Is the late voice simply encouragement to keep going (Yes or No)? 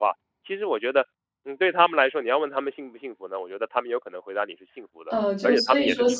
No